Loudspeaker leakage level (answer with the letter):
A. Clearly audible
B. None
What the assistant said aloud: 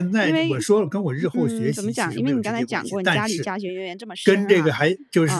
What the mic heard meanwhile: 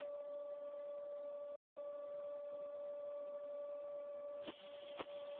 B